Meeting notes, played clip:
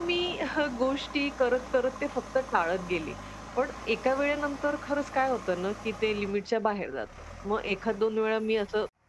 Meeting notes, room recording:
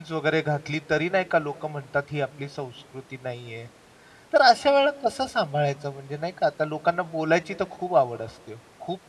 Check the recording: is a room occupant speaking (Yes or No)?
Yes